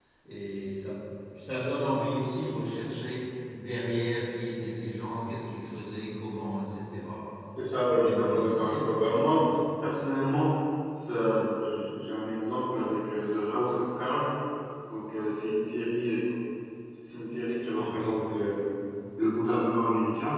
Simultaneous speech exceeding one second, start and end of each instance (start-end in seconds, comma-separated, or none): 7.7-8.9